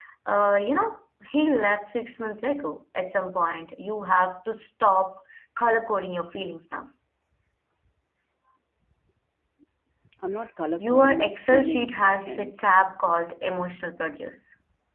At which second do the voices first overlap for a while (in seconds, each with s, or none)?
10.8 s